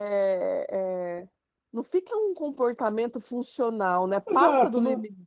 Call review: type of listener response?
taking over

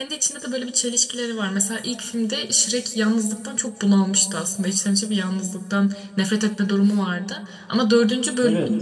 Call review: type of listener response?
listening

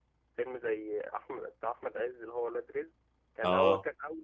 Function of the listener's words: listening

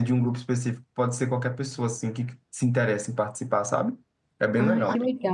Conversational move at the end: taking over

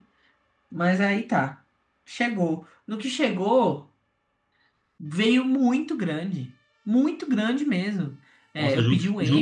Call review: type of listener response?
taking over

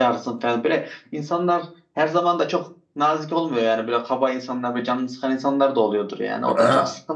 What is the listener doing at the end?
listening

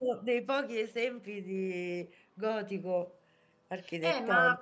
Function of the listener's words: taking over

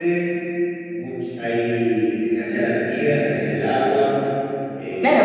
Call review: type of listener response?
taking over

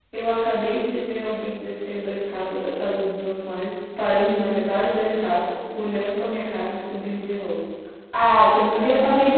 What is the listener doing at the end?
listening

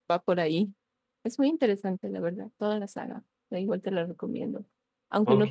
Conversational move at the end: listening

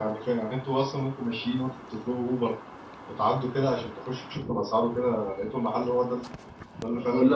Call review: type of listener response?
taking over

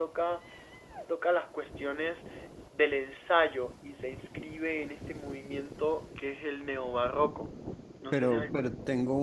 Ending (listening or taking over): taking over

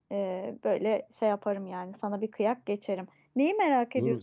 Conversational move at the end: taking over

